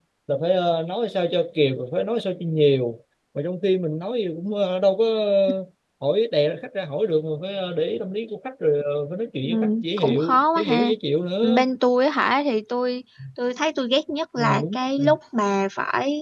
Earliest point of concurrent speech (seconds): 9.5 s

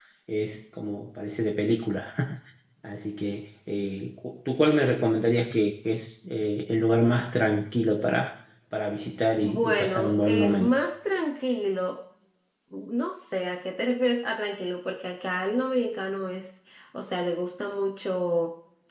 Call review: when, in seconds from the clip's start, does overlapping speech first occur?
9.4 s

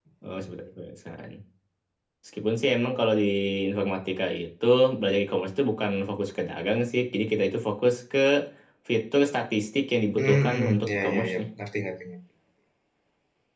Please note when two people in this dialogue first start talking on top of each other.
10.2 s

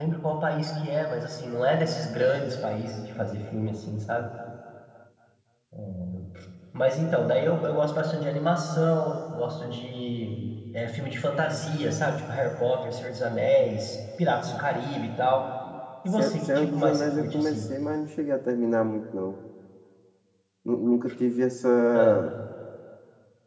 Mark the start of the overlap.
16.1 s

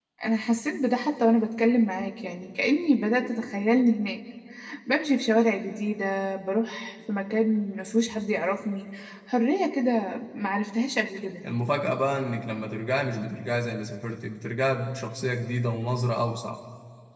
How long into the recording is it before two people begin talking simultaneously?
none

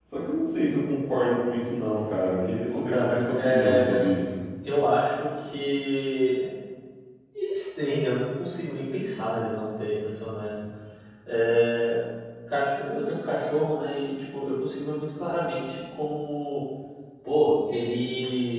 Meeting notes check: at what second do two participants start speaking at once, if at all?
2.7 s

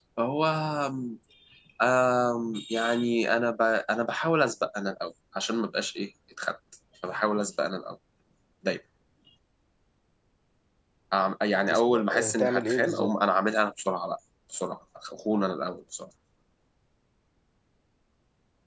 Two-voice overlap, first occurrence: 11.7 s

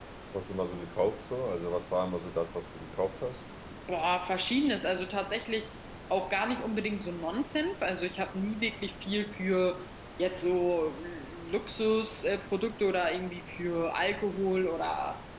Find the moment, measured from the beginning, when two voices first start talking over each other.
none

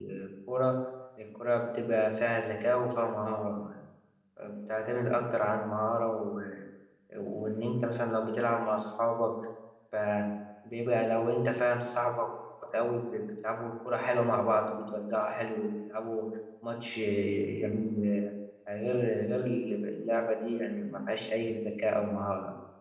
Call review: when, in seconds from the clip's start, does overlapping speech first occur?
none

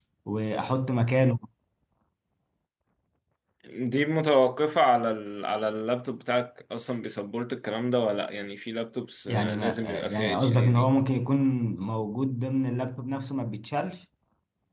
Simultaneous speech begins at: 9.3 s

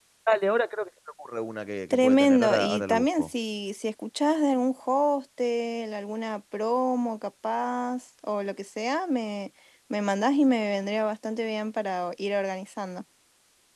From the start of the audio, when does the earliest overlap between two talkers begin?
1.9 s

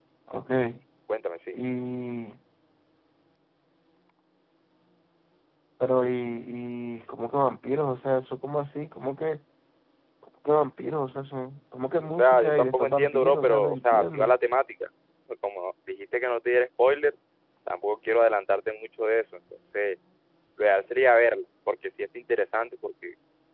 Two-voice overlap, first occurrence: 12.0 s

